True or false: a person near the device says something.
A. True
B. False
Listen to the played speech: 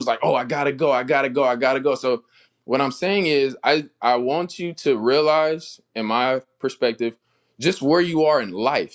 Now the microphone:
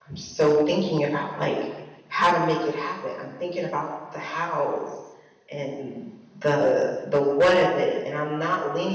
A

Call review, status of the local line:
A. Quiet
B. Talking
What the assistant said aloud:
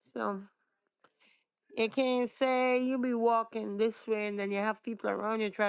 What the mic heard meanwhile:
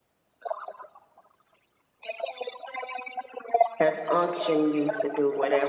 B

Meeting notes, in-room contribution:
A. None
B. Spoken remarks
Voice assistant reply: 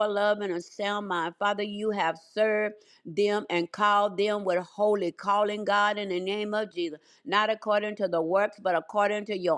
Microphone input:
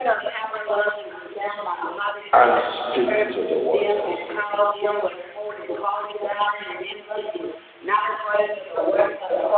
B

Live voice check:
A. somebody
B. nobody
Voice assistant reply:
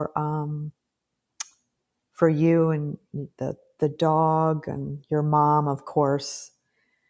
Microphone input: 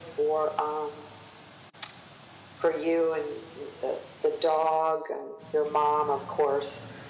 B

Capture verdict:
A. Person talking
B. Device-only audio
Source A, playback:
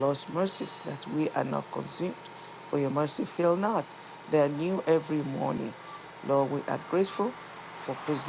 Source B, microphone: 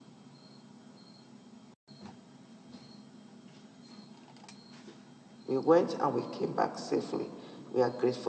A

